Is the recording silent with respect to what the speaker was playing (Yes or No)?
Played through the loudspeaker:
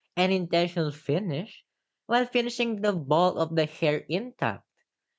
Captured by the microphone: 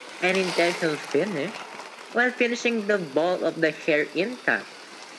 No